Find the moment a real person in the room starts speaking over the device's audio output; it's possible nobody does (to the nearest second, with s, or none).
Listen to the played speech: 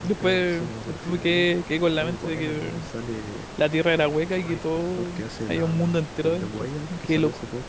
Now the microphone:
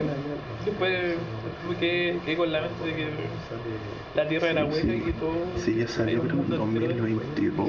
4 s